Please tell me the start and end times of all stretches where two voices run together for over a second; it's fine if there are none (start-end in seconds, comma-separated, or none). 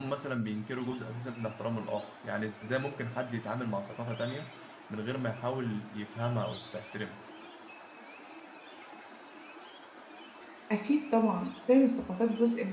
none